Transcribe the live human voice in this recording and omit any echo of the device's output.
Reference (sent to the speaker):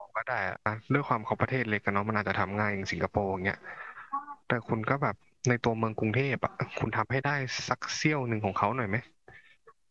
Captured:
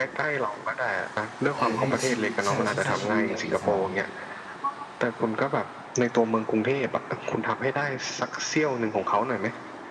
เออถ้าชีวิตใช่ใช่ใช่ชีวิตอยากอิสระเนี่ย

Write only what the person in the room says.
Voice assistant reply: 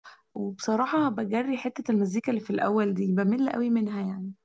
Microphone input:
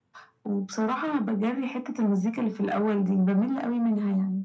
none

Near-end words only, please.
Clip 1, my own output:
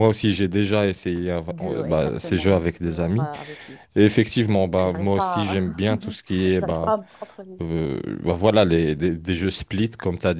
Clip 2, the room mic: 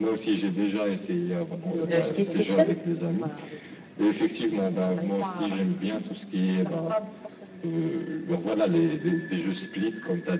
Le Split Fiction?

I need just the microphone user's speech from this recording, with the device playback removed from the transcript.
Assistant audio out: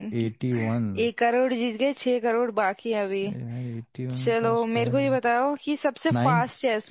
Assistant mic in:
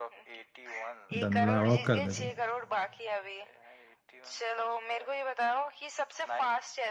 डन ला लॉक कर दे तू

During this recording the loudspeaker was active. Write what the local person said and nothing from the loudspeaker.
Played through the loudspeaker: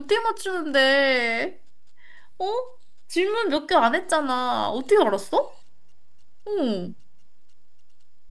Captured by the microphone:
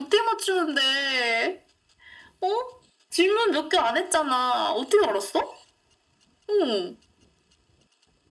none

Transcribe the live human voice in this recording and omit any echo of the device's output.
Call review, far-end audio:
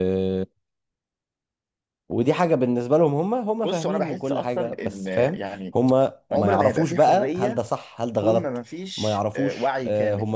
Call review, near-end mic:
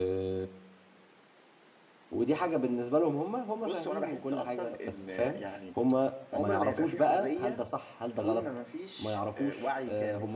none

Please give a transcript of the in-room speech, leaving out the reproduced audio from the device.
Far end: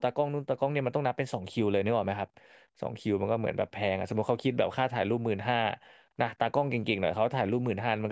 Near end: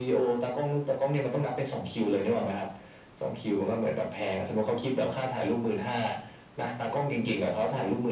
none

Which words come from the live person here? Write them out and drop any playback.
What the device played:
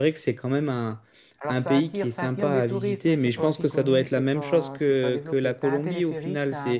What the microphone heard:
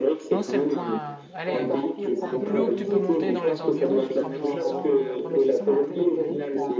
Non, c'est le point. Allez, au plus haut que tu peux monter dans les environs, c'est trois mille six cents trois mille six cents mètres à peu près,

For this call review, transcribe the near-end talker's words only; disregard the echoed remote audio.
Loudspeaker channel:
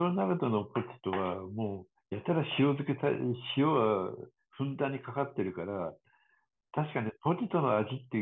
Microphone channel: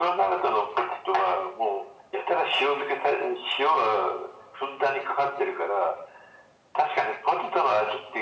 none

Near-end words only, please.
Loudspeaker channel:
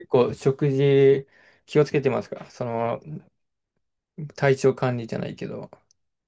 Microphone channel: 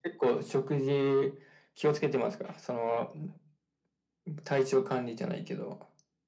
none

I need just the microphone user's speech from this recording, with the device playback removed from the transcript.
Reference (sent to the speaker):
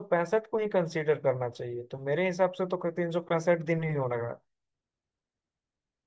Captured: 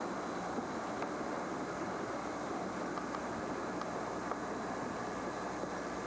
none

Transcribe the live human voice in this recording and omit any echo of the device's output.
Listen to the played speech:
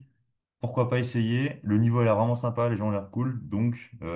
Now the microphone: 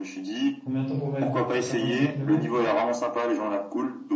Combien de temps pour mettre, pour faire vingt-cinq kilomètres km?

